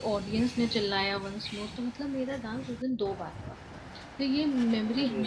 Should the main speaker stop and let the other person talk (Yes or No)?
No